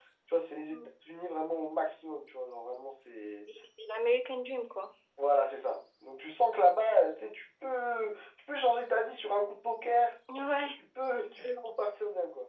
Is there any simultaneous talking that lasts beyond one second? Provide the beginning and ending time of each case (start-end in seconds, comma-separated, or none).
none